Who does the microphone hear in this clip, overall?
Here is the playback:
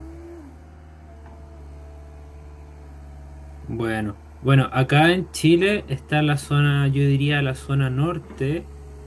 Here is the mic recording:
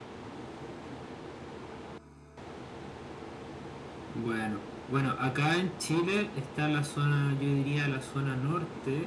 echo only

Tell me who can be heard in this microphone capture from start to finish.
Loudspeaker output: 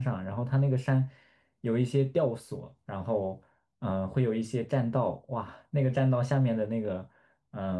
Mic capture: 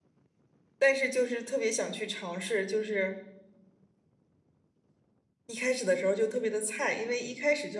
user only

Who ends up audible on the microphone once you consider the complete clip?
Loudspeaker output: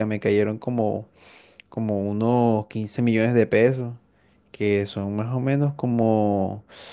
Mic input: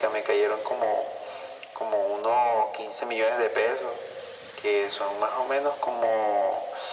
echo only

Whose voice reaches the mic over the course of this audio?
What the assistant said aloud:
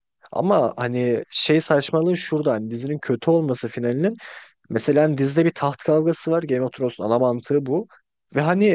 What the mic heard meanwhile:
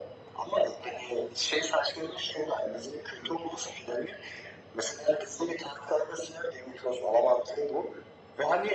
echo only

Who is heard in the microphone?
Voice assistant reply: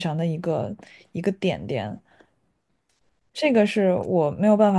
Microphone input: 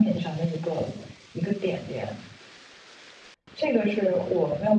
echo only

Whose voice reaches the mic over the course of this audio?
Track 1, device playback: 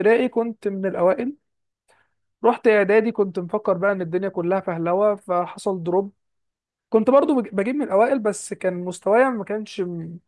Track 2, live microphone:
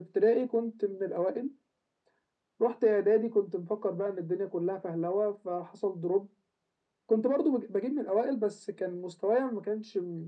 echo only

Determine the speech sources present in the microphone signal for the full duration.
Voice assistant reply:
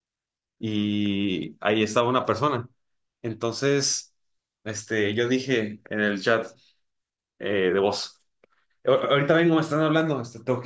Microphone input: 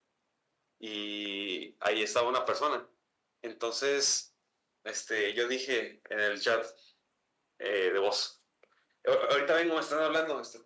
echo only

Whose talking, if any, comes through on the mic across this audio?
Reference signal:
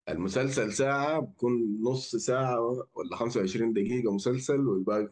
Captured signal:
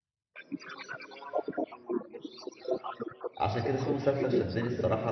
both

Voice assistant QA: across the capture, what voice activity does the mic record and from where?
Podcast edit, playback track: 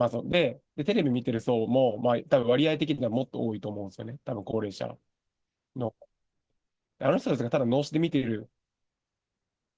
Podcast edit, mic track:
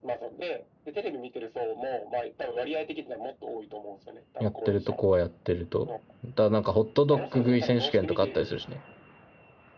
both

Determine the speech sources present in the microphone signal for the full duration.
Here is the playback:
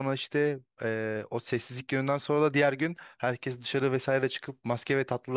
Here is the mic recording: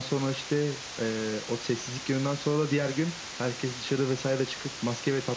echo only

